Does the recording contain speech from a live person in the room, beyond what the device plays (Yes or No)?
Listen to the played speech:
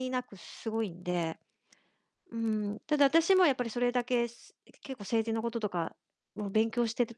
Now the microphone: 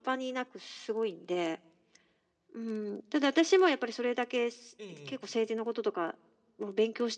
Yes